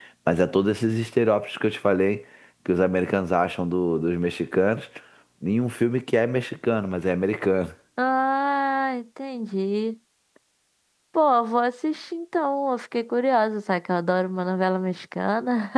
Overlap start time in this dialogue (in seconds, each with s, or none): none